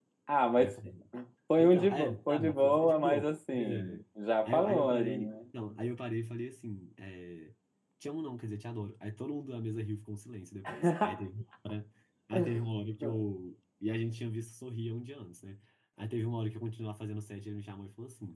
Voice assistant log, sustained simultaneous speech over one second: present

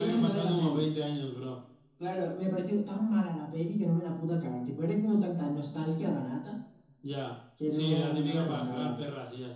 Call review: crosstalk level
present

